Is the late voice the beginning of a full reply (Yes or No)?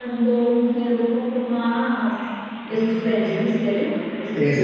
Yes